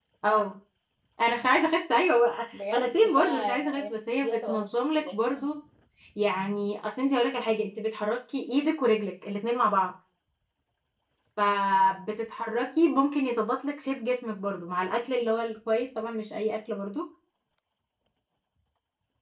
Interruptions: present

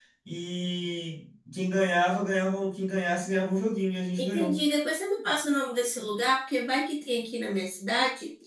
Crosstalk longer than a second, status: none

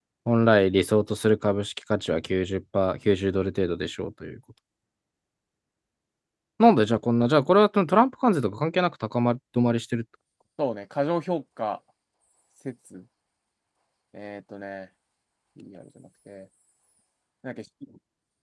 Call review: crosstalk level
none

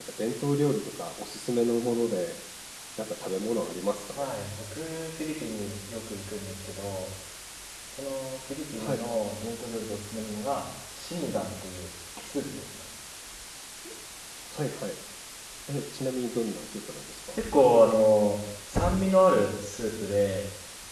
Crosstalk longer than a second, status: none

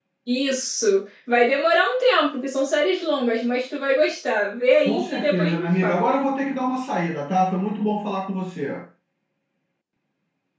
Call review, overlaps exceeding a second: present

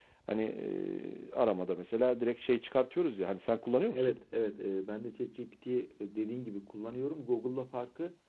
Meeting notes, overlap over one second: none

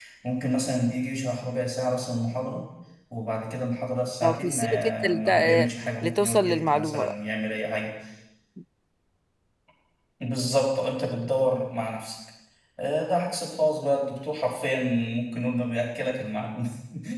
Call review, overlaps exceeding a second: present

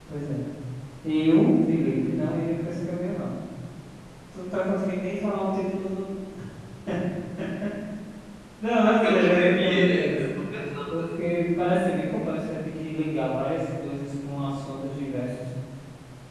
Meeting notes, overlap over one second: present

